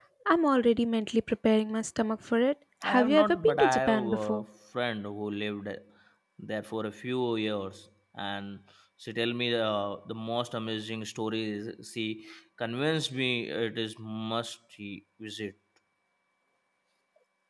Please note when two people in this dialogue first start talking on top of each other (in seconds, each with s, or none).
2.8 s